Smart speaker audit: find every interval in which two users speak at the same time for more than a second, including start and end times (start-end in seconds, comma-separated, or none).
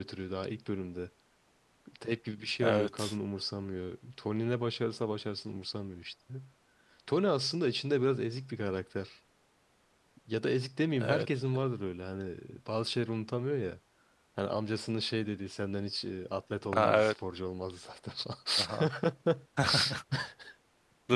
none